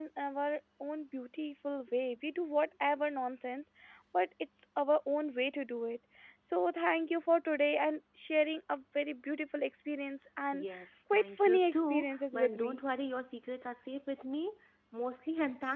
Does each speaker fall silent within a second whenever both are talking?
No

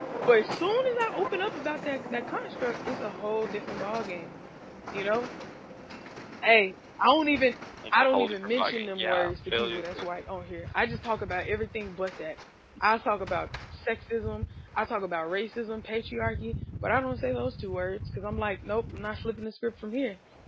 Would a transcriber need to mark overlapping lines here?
Yes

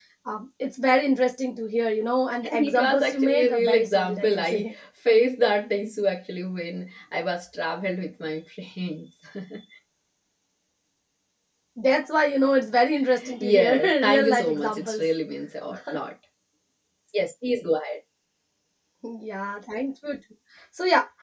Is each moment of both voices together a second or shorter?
No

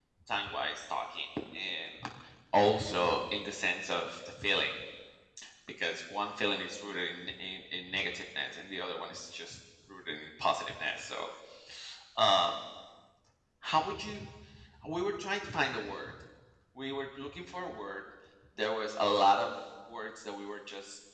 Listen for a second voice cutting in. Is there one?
No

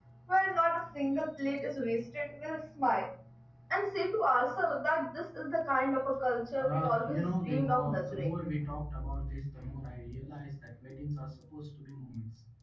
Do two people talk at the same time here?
Yes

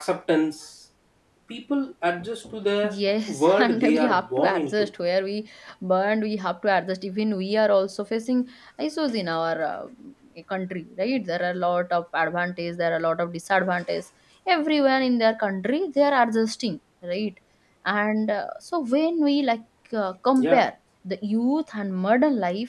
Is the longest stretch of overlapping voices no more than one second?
No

